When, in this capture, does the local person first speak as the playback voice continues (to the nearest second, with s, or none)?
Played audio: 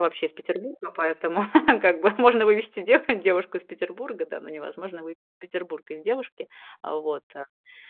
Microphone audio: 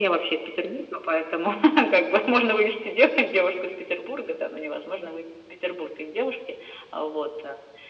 none